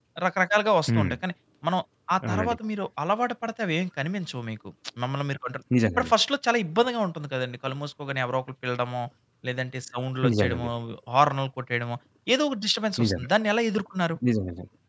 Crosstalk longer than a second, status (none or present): none